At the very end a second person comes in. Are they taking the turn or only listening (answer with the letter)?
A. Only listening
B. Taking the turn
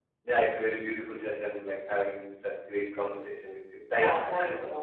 B